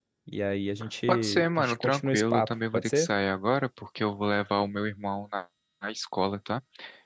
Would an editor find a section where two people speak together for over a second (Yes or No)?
Yes